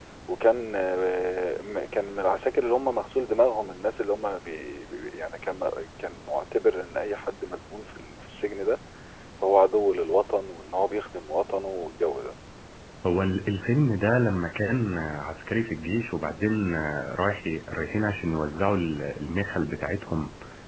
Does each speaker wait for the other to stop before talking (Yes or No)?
Yes